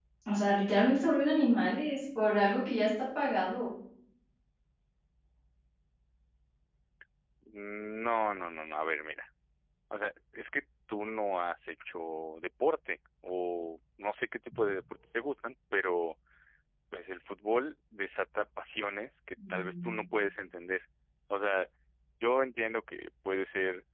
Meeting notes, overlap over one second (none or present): none